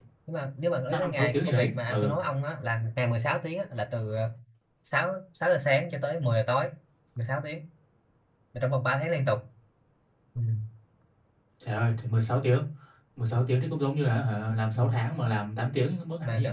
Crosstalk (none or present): present